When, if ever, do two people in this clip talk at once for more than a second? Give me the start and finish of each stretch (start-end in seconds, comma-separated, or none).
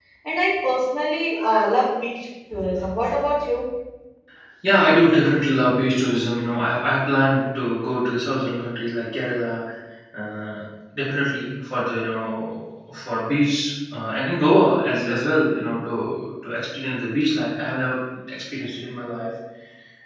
none